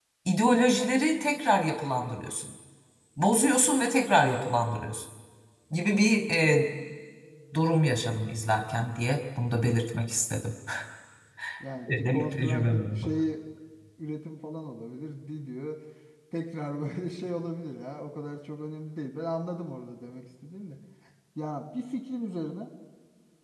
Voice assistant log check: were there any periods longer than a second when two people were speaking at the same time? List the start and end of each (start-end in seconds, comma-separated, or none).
11.9-13.1